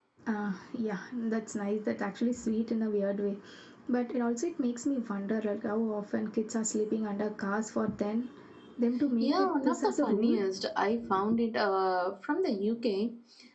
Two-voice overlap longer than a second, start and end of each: 9.2-10.4

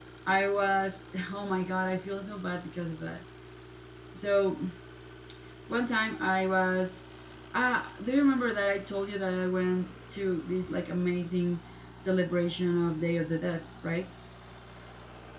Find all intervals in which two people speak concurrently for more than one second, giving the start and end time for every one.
none

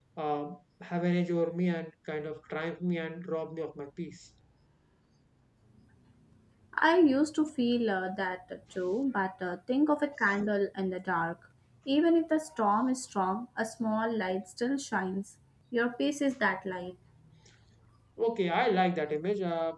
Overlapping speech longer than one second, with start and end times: none

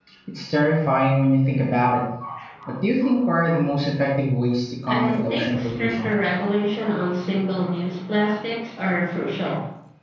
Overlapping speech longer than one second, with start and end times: 4.9-6.1

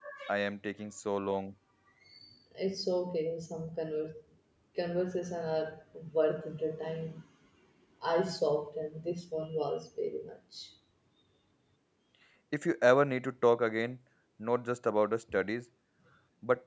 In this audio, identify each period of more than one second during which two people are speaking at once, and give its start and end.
none

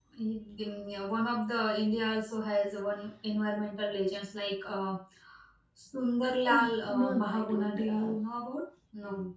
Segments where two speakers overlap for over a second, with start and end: 6.5-8.1

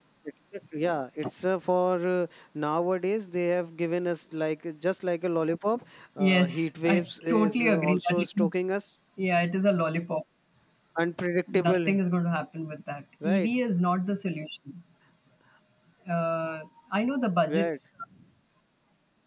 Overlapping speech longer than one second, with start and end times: 6.2-8.5

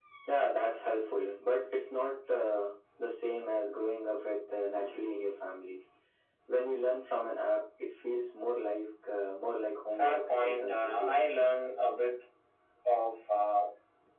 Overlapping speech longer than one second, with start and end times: 10.0-11.2

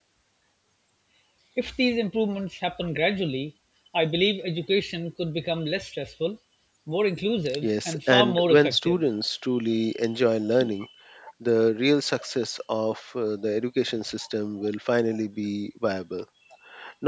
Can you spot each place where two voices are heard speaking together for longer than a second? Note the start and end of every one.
7.6-9.0

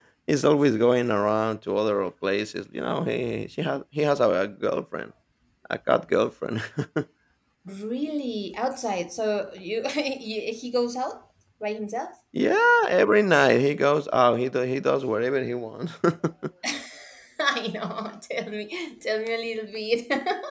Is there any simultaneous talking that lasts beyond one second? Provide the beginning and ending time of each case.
none

